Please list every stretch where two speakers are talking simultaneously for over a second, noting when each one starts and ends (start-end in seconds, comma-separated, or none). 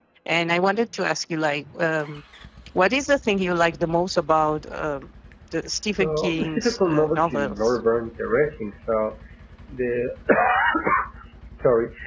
6.0-7.8